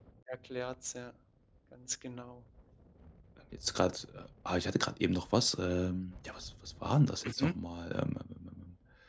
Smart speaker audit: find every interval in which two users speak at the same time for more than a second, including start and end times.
none

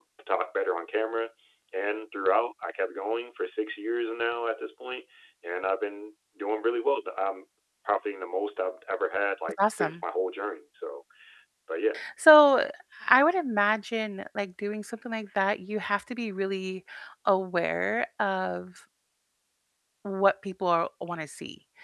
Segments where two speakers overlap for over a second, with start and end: none

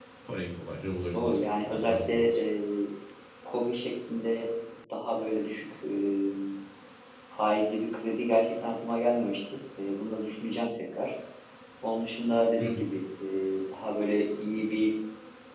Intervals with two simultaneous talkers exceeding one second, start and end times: 1.1-2.4

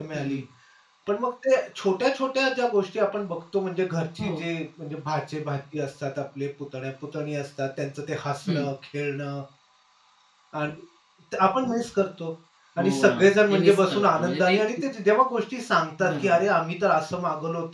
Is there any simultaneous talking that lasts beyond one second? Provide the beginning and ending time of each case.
12.8-14.6

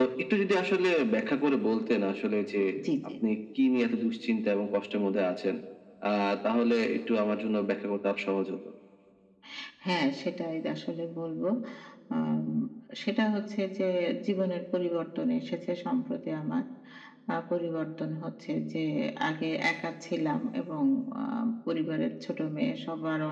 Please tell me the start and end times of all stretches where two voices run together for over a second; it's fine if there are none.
none

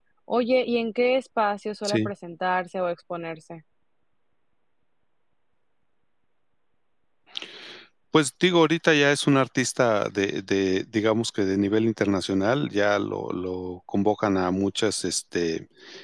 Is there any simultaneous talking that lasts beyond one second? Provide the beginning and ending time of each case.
none

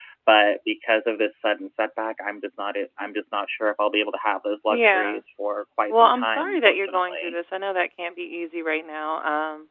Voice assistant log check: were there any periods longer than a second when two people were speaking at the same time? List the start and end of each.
5.9-7.3

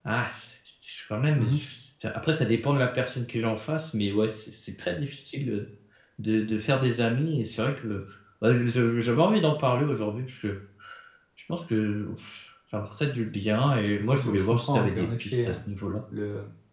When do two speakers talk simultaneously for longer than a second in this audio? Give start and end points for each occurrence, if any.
14.1-15.6

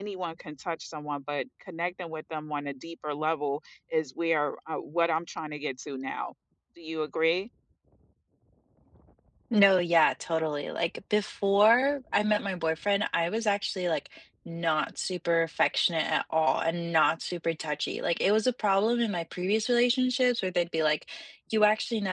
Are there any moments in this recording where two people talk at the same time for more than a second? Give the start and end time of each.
none

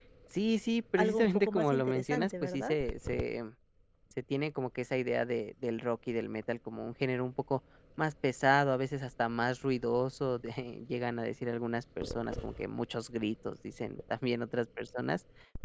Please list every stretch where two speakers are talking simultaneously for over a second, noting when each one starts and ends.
1.0-2.7

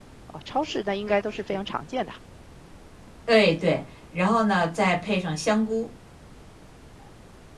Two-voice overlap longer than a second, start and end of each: none

